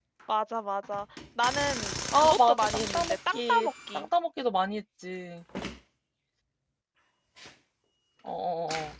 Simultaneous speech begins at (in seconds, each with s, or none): 2.1 s